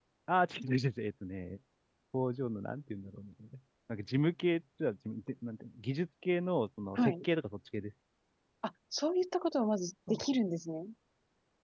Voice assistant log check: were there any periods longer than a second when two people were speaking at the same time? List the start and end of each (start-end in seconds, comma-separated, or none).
none